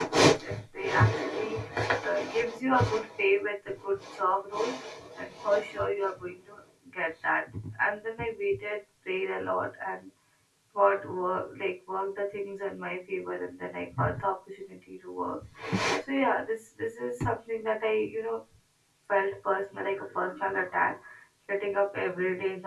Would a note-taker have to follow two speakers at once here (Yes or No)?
No